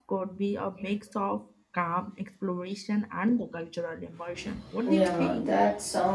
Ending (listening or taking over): taking over